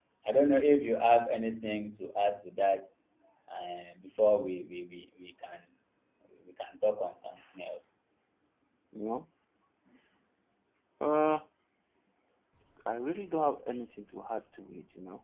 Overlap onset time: none

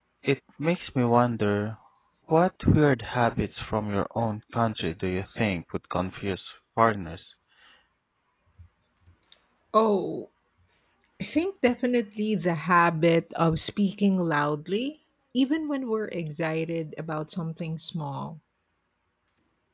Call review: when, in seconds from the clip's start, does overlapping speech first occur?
none

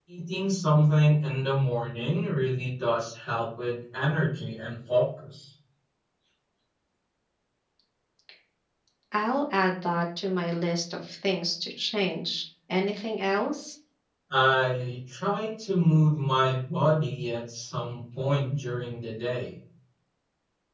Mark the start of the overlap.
none

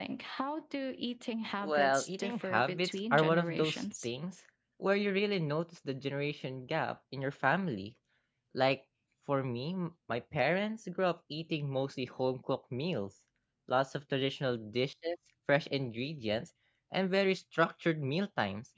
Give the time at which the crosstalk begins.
1.6 s

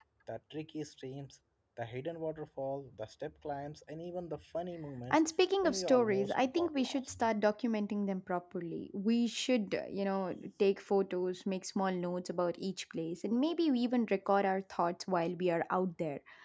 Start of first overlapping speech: 5.6 s

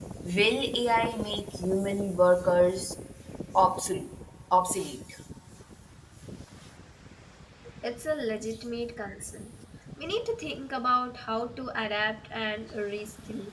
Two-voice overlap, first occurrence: none

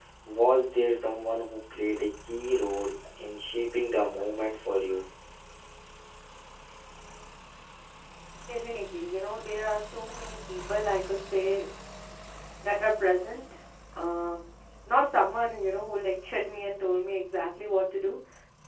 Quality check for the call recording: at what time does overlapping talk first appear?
none

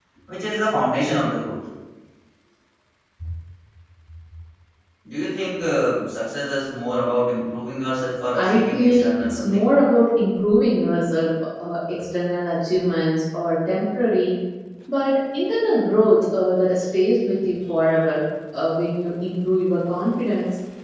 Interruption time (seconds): 8.3 s

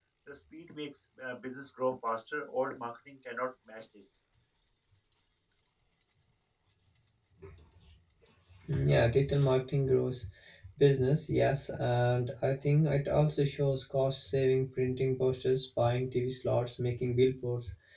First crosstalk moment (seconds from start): none

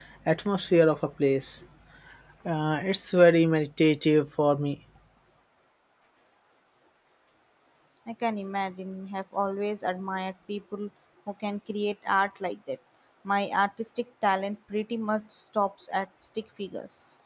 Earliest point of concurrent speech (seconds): none

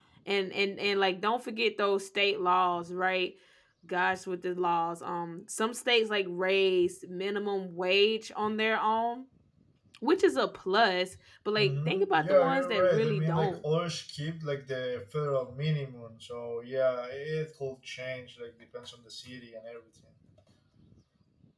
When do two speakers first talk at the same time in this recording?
11.6 s

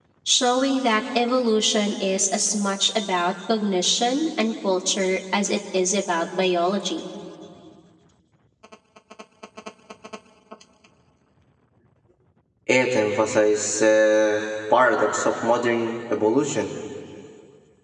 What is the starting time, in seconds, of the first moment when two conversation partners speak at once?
none

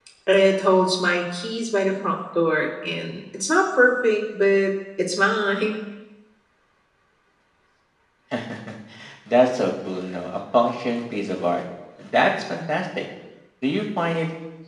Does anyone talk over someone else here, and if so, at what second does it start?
none

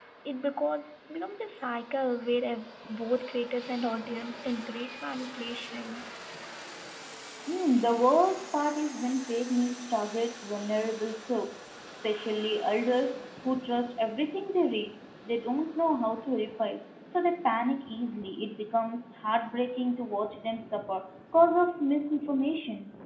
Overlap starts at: none

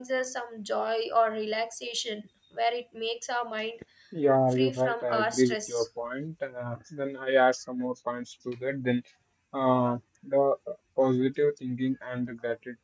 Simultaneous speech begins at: 4.5 s

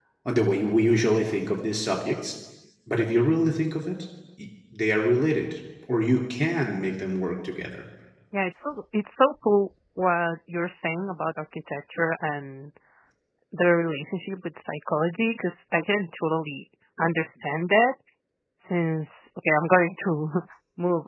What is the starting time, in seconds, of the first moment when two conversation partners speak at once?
none

